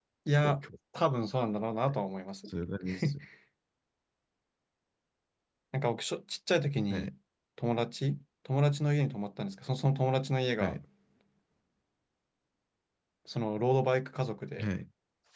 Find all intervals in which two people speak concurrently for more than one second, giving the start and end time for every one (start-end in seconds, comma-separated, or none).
none